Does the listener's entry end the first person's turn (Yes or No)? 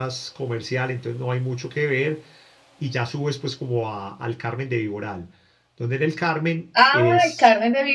Yes